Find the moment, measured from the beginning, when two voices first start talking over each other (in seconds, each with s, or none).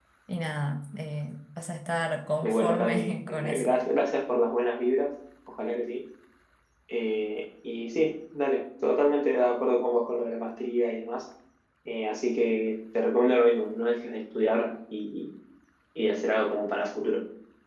2.4 s